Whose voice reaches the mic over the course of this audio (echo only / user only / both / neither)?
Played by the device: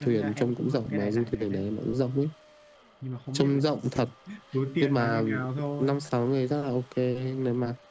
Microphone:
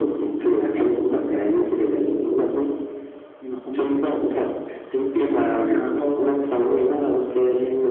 echo only